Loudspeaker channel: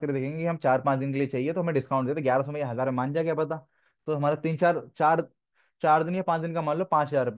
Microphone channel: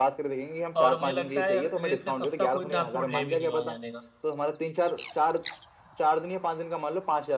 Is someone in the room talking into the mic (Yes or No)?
Yes